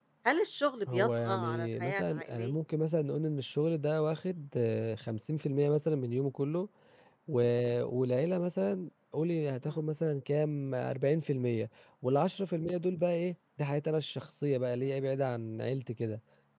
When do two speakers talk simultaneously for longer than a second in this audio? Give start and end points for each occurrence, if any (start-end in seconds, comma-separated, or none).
0.9-2.5